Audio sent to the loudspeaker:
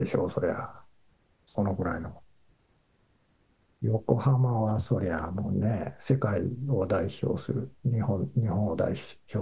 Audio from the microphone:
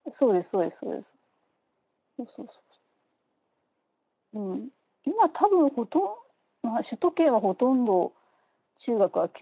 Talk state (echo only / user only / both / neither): user only